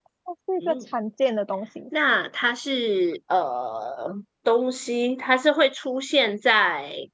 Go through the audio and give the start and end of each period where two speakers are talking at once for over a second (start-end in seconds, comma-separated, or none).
none